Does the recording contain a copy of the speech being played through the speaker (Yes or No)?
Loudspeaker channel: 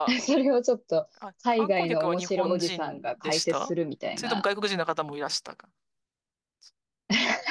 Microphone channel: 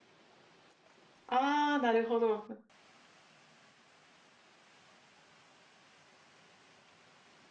No